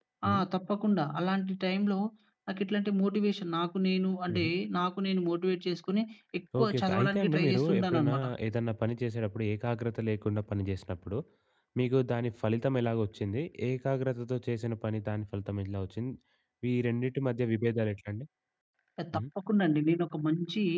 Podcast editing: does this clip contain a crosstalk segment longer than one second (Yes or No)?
Yes